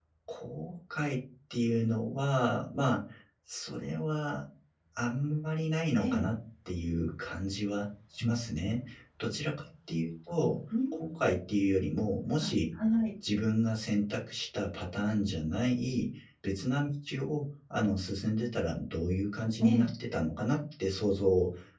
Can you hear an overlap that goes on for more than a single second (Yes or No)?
No